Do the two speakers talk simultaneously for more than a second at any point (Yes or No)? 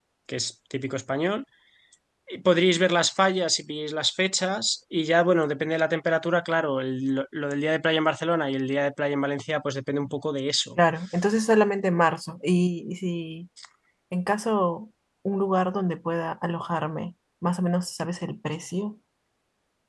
No